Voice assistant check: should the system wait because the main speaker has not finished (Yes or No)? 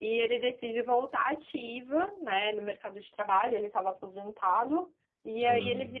Yes